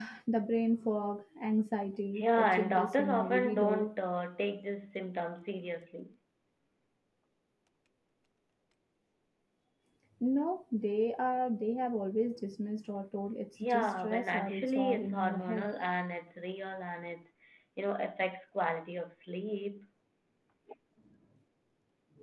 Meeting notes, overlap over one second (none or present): present